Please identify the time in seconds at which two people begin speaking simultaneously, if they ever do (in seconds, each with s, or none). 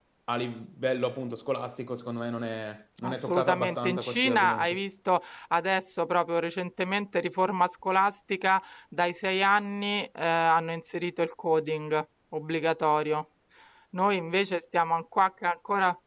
3.0 s